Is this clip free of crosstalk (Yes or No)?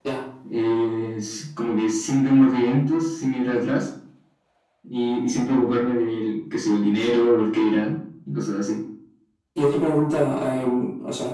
Yes